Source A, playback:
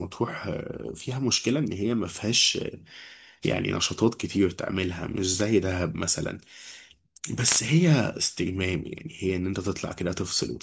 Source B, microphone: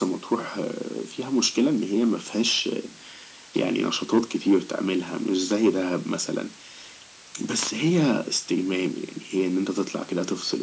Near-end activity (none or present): none